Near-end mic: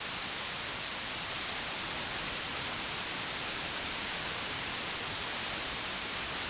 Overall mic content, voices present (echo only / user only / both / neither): neither